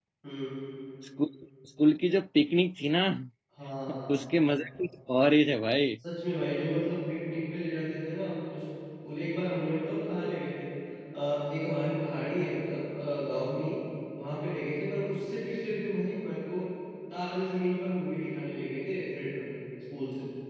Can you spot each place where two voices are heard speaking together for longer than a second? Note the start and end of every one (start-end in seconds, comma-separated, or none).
none